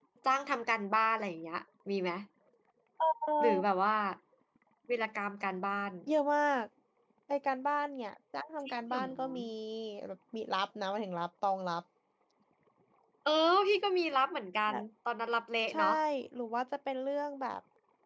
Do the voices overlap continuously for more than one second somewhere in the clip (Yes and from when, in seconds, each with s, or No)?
No